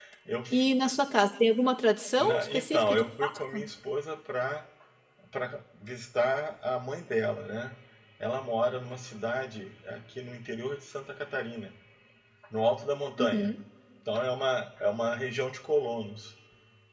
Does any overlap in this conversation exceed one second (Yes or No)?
Yes